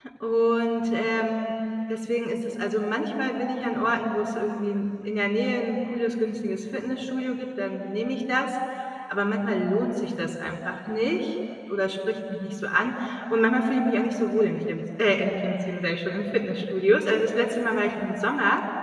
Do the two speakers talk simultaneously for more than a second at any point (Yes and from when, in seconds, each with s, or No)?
No